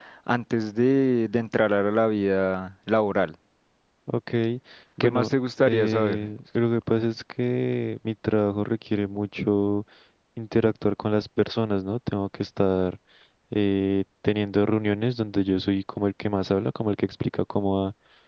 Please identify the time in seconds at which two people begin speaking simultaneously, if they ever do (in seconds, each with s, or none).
5.0 s